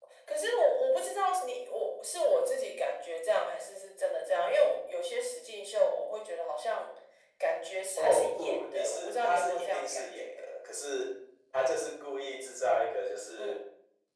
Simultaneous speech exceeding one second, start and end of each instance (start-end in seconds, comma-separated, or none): 8.0-10.4